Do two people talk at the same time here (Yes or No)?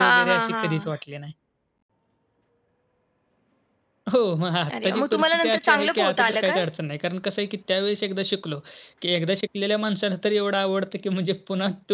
Yes